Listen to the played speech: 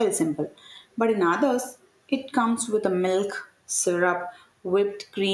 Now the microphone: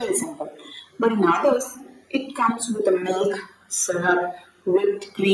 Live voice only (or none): none